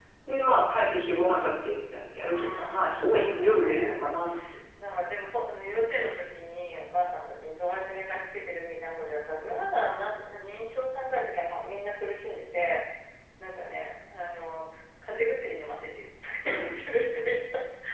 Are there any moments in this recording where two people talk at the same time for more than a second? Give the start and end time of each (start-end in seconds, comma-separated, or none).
2.2-4.0